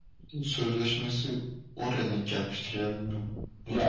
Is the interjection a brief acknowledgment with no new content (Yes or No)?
No